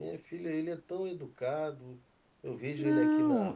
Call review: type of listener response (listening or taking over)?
listening